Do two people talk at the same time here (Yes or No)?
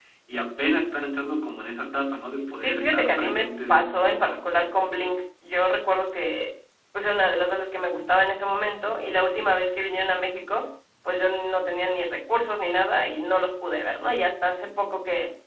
Yes